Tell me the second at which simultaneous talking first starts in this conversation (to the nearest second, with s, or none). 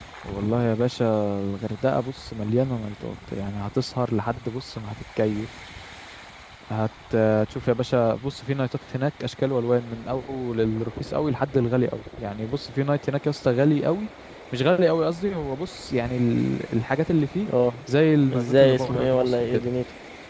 18 s